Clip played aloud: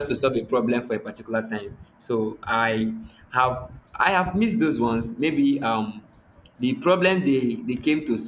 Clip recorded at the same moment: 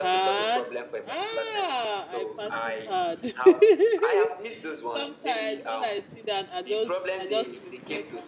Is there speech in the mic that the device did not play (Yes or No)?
Yes